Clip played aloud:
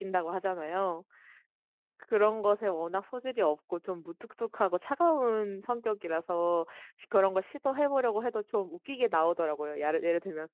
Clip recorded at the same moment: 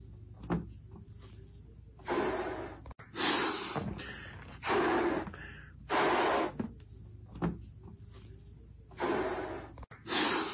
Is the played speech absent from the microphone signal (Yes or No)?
Yes